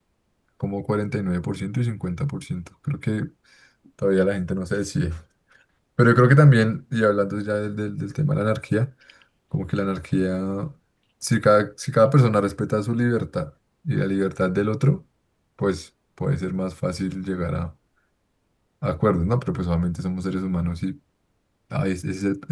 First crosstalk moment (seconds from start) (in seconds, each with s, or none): none